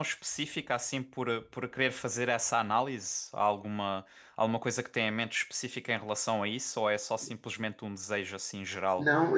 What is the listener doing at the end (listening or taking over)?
taking over